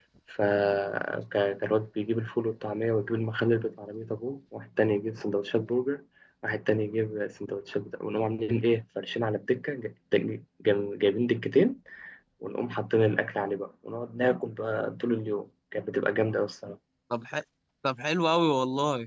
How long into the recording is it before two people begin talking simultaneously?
none

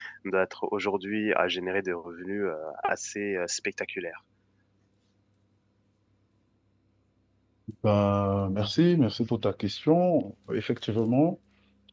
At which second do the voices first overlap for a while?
none

